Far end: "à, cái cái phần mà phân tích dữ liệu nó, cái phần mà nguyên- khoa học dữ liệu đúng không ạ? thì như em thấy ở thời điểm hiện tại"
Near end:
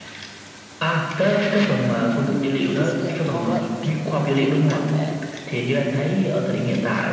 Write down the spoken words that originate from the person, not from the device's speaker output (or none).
ừ, cái dữ liệu thô ấy khi mình mang về